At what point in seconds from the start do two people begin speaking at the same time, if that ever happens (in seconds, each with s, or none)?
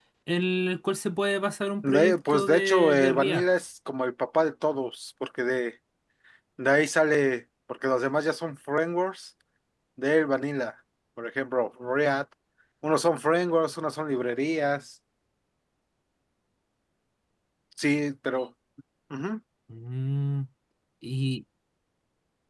1.8 s